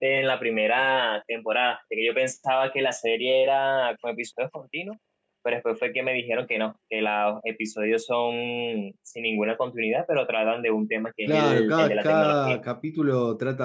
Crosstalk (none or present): present